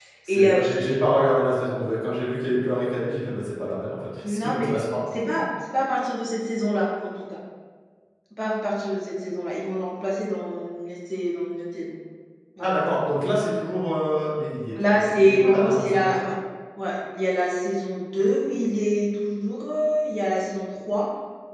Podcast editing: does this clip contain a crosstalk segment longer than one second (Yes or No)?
Yes